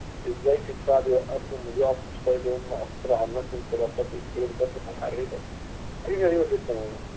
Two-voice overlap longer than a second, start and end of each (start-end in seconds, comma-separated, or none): none